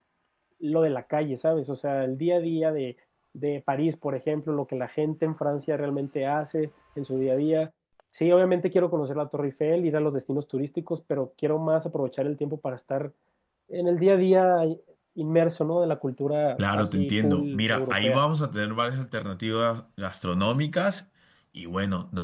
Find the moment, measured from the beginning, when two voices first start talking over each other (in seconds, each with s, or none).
16.6 s